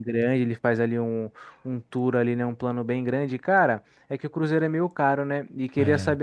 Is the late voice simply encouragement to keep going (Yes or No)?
Yes